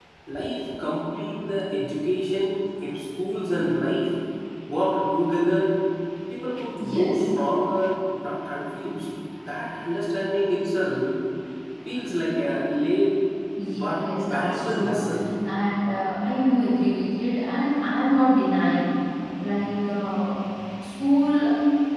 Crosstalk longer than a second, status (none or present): present